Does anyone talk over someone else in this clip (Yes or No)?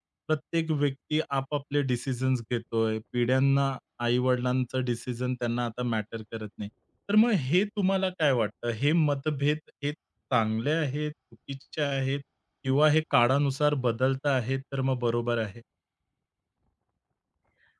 No